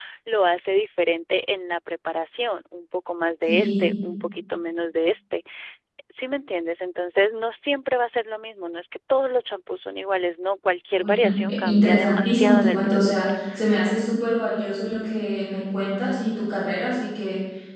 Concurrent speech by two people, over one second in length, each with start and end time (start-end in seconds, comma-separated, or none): 10.9-13.4